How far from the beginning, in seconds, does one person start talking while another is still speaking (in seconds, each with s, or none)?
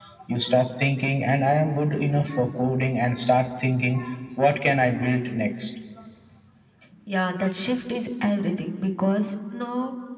none